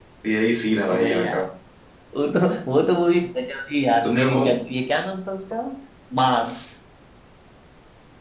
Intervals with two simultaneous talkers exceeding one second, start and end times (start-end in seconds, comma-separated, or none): none